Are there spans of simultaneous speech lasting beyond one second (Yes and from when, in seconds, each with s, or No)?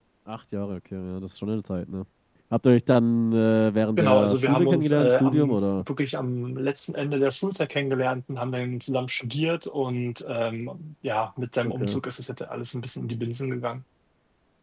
Yes, from 4.0 s